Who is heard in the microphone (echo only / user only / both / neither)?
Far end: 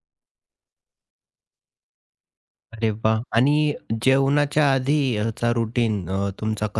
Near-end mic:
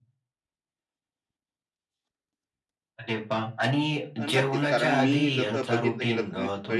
both